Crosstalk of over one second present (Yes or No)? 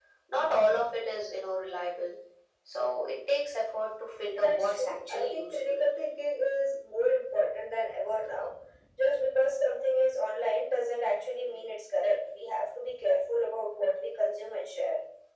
Yes